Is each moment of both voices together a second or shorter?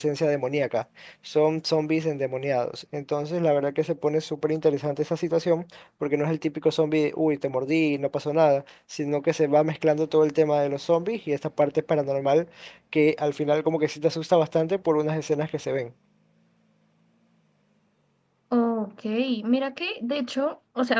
Yes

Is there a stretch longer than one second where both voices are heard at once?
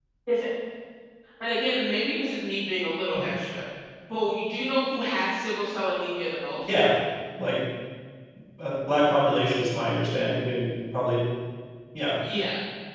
No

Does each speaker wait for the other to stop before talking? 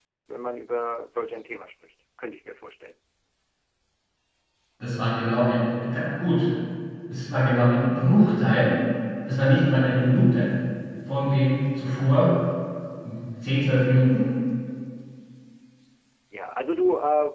Yes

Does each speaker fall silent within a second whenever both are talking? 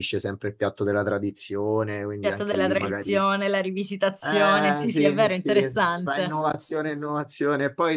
No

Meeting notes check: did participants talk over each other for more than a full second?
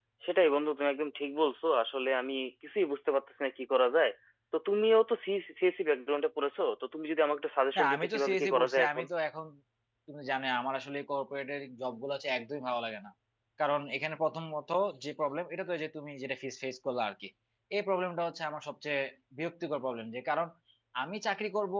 Yes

